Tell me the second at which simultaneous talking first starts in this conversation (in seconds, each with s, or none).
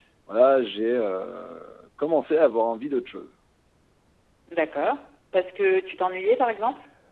none